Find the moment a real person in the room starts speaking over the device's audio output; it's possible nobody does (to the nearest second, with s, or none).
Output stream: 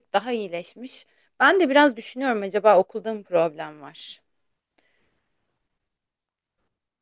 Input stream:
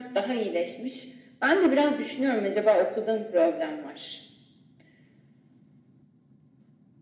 none